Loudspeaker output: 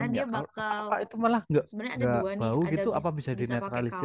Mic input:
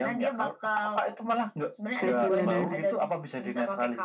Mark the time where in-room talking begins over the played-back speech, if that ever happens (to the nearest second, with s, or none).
2 s